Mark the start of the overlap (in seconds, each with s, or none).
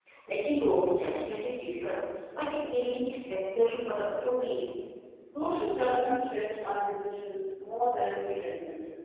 none